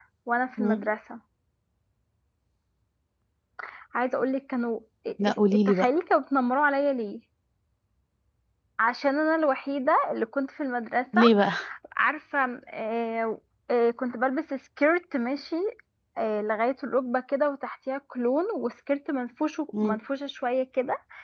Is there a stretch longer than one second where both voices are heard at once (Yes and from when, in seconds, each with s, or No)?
No